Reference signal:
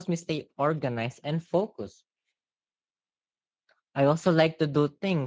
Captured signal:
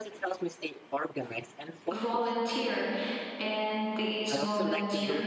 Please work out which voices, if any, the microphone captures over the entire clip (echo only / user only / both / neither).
both